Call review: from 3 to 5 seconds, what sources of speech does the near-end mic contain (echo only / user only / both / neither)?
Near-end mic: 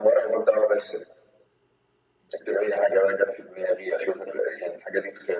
echo only